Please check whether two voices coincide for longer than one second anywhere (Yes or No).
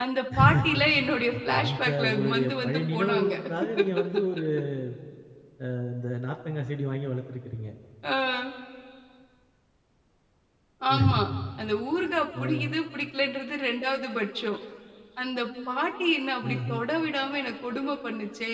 Yes